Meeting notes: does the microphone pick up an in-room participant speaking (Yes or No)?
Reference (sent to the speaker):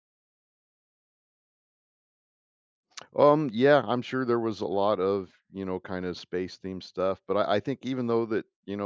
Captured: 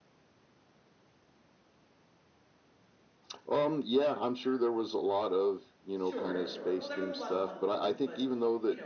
Yes